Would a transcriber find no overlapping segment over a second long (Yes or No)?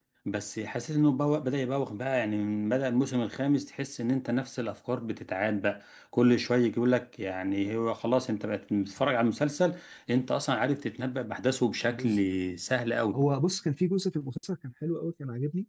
Yes